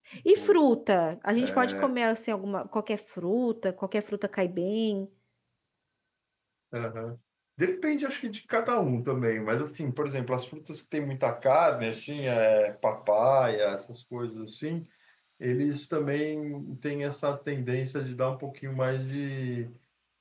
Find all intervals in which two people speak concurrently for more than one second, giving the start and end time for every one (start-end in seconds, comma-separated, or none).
none